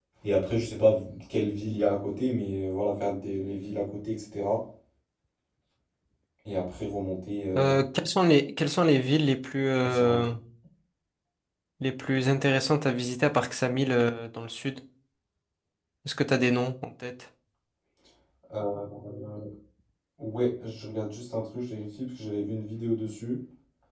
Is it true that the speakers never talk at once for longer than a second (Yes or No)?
Yes